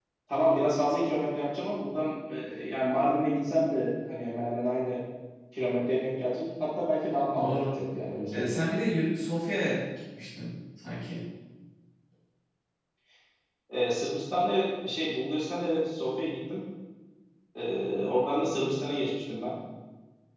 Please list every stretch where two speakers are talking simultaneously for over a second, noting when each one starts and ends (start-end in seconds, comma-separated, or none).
none